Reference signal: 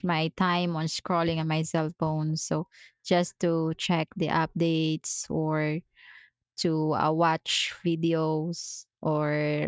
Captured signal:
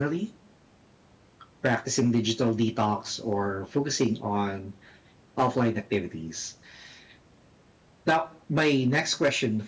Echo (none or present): none